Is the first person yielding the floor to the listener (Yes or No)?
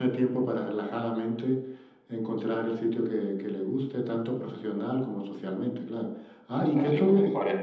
Yes